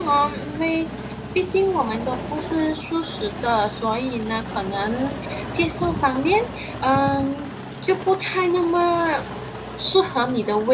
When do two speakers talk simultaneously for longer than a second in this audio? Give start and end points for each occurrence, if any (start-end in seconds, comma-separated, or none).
none